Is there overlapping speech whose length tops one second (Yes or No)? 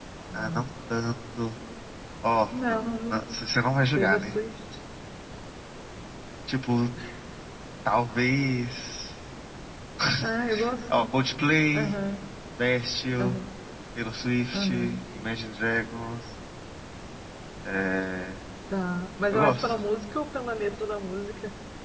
No